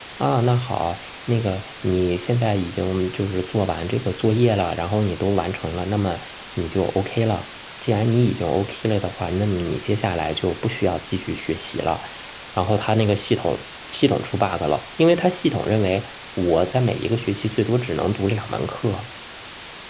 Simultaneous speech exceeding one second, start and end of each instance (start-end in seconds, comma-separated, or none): none